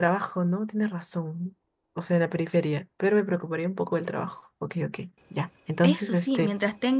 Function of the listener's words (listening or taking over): taking over